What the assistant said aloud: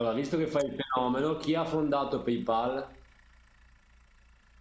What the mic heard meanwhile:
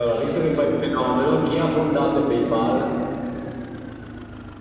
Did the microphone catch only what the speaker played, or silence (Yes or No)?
Yes